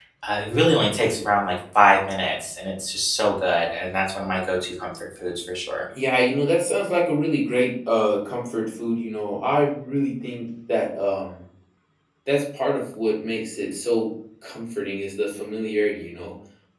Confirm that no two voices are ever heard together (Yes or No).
Yes